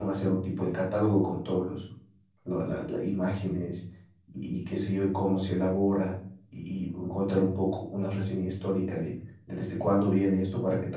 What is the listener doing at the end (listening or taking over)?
listening